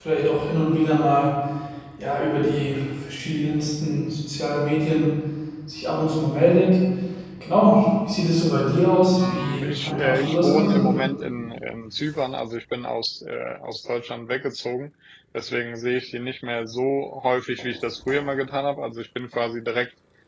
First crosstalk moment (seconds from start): 9.2 s

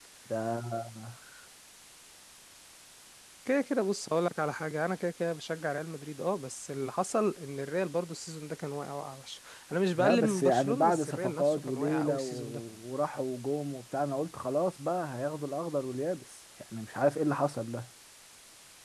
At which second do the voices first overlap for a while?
10.0 s

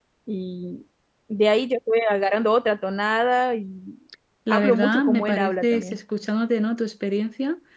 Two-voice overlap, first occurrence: 4.5 s

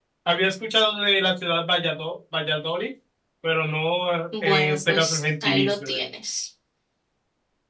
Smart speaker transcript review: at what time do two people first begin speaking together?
4.3 s

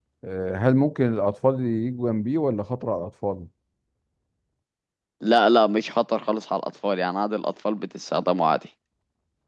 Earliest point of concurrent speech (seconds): none

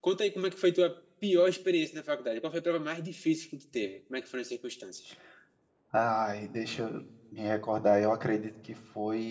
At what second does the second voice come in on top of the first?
none

